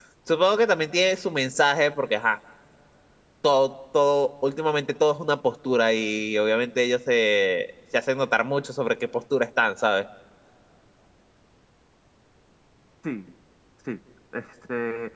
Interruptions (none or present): none